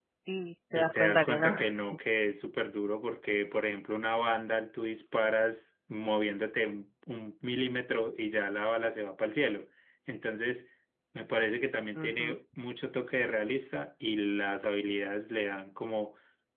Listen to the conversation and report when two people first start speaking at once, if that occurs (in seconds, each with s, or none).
0.7 s